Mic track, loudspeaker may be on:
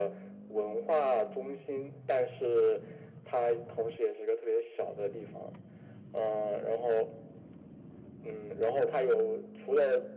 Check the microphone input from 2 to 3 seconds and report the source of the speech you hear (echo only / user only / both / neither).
echo only